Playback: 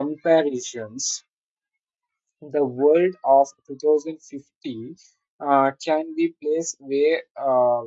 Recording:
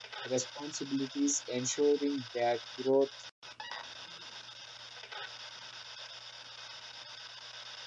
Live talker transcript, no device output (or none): responsibilities, ensuring that growth